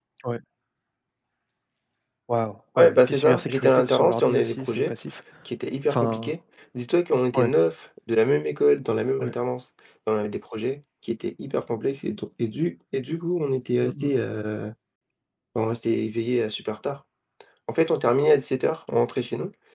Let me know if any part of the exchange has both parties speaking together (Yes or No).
Yes